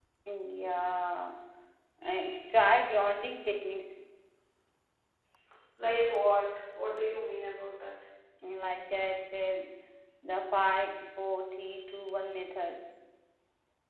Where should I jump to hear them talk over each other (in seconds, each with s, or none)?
none